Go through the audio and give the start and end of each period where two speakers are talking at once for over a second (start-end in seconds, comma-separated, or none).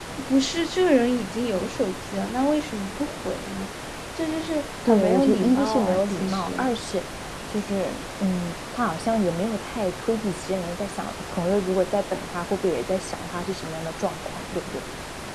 4.8-6.7